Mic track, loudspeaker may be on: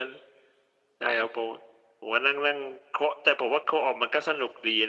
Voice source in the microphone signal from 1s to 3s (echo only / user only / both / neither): echo only